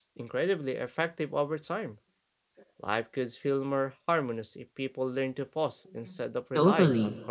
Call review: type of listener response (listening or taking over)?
taking over